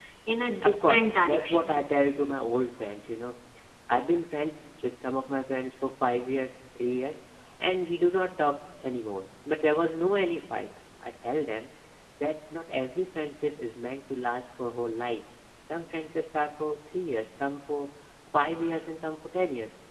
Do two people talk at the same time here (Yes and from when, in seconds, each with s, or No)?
Yes, from 0.6 s